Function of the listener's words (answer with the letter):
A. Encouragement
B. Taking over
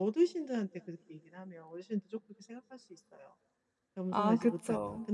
A